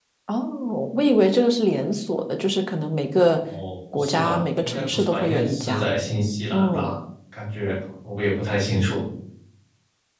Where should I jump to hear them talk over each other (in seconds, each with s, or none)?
3.9 s